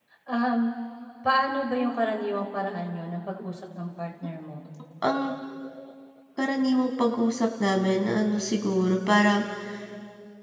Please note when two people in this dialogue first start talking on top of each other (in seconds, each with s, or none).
none